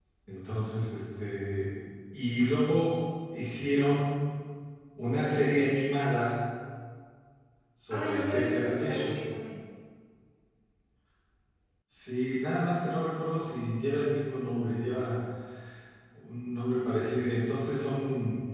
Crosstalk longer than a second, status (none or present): present